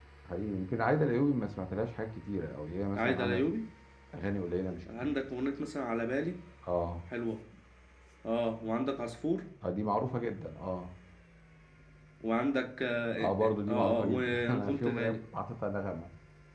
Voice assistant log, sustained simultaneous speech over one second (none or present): present